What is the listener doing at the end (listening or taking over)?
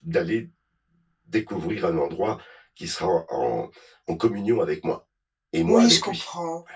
taking over